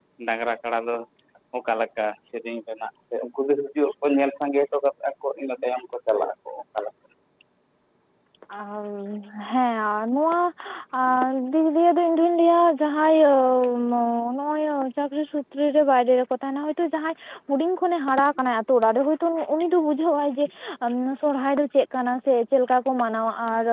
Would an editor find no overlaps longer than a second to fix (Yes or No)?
Yes